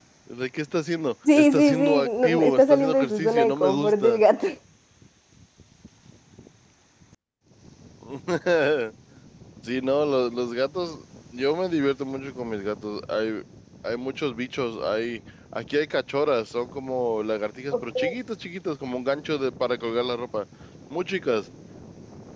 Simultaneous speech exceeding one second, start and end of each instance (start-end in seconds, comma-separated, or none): 1.4-4.2